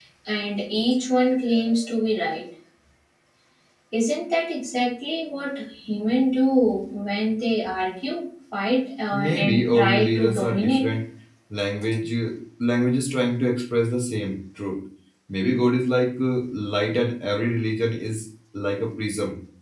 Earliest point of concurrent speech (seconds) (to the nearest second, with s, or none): 9 s